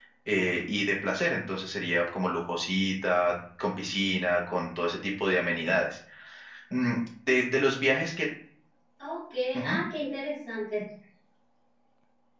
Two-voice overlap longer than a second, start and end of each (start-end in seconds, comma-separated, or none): none